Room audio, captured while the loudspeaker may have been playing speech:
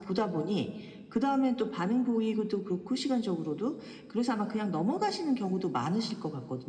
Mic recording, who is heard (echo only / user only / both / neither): echo only